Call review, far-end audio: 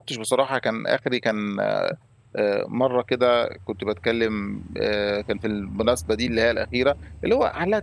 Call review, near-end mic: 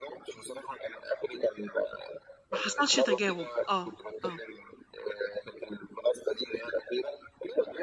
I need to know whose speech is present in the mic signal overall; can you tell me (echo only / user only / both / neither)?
both